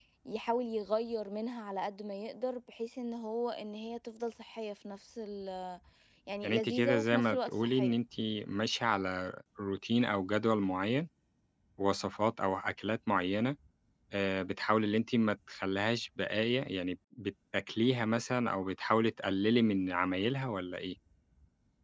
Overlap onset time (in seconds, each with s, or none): 6.4 s